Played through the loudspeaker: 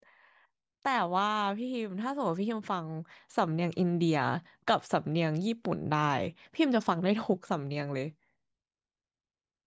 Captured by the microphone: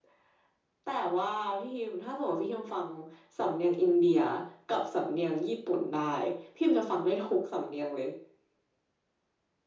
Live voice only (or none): none